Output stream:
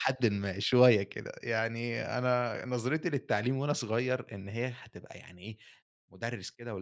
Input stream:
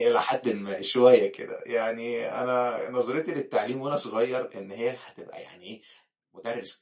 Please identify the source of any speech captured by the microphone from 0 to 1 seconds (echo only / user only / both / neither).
echo only